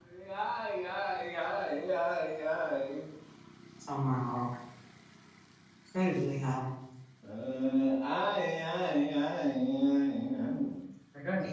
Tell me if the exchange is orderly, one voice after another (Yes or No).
Yes